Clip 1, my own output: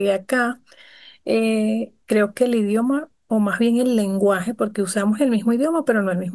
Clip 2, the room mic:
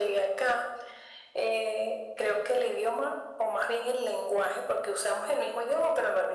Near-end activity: none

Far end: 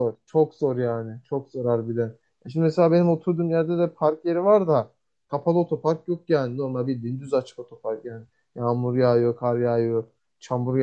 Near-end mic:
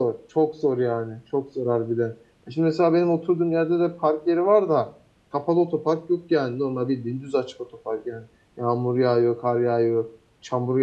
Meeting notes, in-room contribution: none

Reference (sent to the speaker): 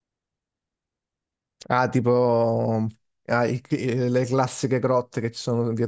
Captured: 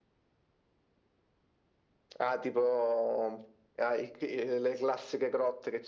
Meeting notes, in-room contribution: none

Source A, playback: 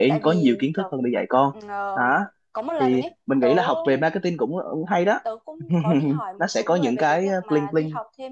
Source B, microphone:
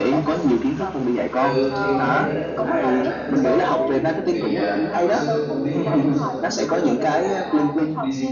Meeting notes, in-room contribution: present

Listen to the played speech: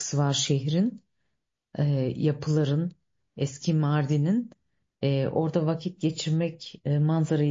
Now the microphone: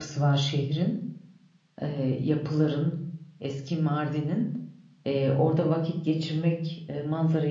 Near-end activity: none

